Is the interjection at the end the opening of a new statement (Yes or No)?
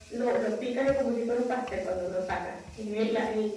No